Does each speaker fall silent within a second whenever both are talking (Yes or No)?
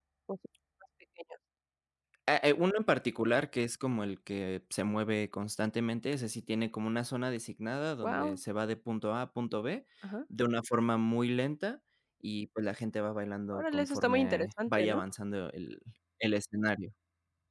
No